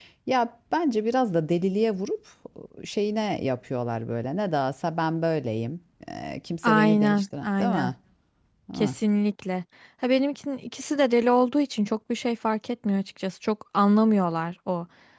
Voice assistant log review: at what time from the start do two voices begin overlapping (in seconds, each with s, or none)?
6.6 s